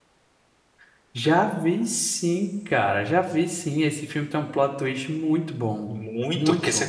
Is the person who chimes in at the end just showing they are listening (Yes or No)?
No